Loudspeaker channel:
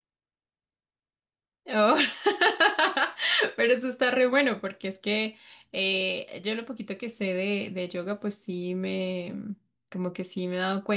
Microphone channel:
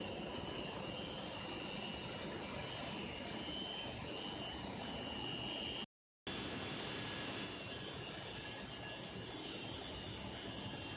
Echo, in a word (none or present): none